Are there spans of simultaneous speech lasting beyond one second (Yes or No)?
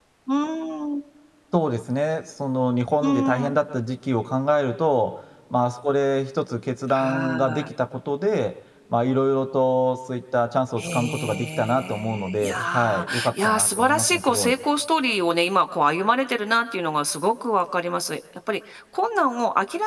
Yes